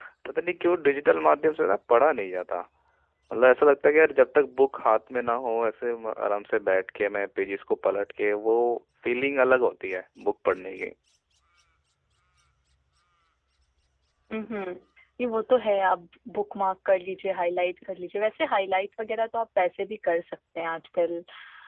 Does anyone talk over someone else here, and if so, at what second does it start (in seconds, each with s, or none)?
none